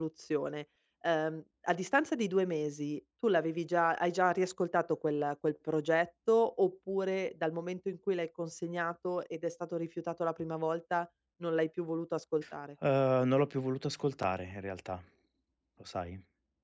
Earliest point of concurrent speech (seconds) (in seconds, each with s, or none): none